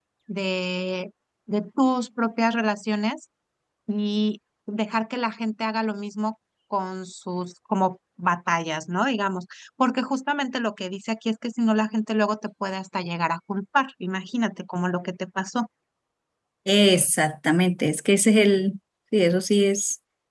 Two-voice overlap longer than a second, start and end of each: none

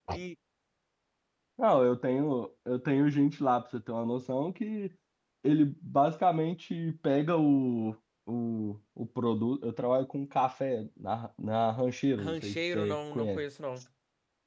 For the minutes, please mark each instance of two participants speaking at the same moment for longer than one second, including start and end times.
12.2-13.4

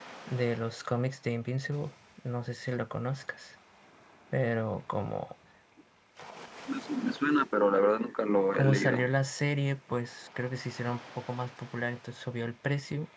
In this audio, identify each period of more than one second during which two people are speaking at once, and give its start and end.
none

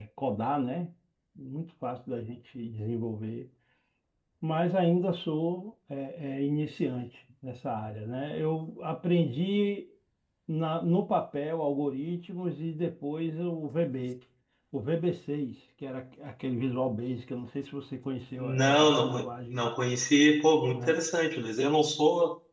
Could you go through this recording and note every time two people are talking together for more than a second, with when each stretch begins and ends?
18.4-19.6

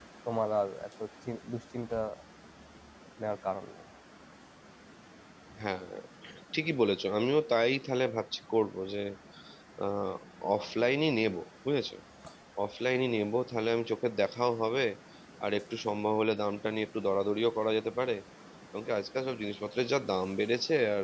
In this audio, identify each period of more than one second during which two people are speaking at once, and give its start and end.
none

